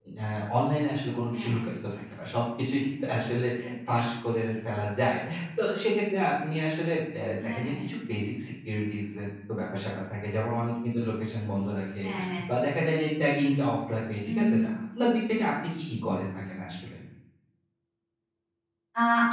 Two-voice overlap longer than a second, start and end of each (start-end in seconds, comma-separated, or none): none